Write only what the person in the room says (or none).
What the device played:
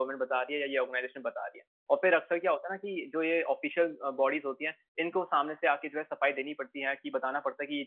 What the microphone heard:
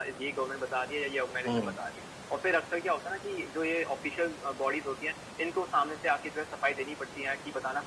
हुँ,